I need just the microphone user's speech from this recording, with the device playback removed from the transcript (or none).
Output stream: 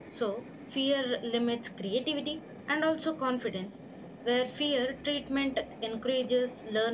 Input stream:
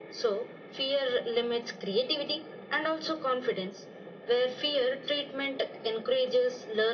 none